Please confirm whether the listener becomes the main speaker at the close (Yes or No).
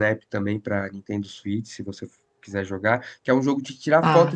No